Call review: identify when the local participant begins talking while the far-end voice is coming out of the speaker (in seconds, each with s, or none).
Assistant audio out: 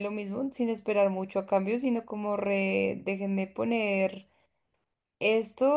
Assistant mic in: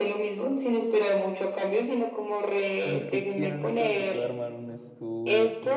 2.8 s